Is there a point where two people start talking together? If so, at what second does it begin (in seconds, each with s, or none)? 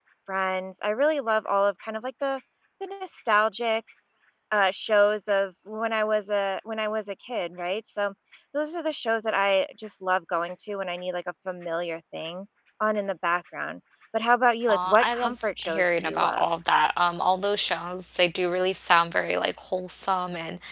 14.7 s